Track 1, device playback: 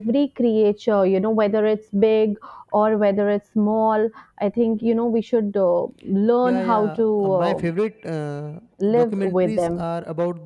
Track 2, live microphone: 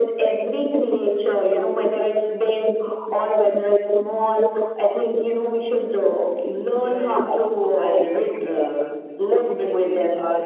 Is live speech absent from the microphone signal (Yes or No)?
Yes